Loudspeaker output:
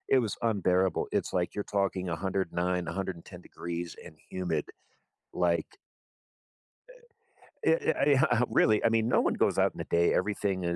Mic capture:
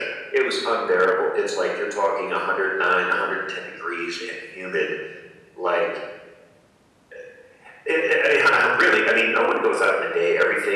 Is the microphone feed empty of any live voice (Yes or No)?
Yes